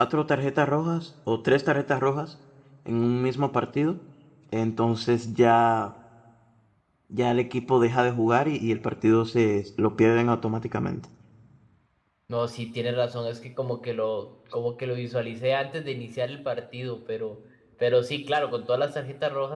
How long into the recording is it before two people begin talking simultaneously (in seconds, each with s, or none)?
none